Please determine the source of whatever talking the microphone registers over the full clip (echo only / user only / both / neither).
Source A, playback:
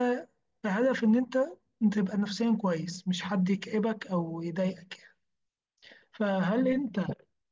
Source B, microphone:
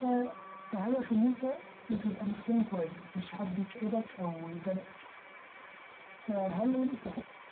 echo only